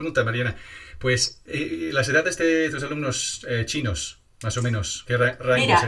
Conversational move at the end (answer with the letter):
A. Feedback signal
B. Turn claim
B